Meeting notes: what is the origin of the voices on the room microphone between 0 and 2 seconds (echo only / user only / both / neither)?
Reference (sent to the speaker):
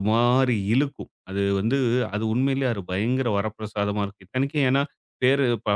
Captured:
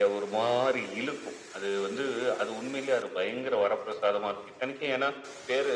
echo only